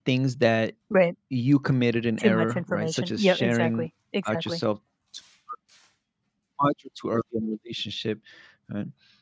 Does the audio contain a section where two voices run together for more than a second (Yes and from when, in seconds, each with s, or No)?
Yes, from 2.2 s